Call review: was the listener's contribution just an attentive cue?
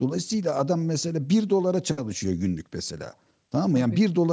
Yes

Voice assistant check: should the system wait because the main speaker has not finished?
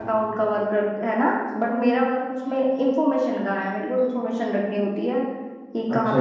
No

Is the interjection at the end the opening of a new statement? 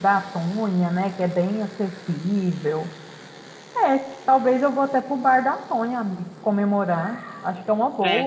Yes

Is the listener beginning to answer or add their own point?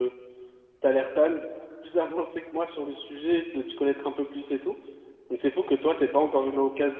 No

